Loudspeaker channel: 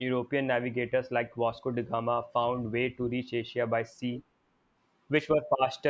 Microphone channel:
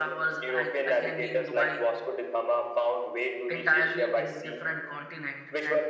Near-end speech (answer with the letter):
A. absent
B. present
B